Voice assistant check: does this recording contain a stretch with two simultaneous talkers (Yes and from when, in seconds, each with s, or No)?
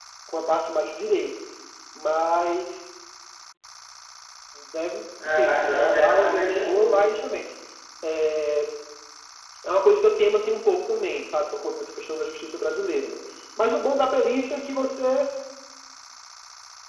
Yes, from 5.2 s